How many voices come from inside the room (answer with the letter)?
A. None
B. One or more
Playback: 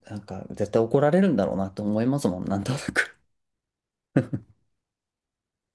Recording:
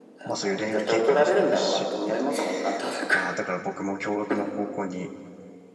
B